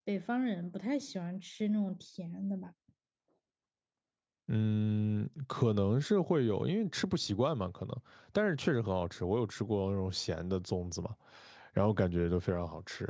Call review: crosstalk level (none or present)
none